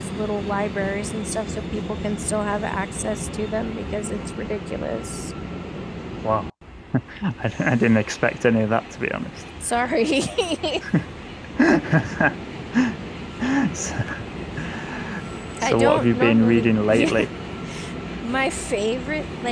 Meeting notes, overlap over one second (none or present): present